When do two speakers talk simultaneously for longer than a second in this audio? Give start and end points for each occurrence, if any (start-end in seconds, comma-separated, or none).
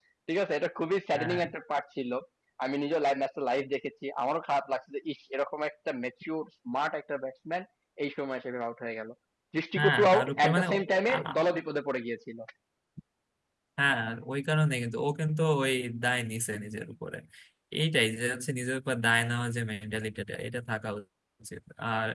9.8-11.4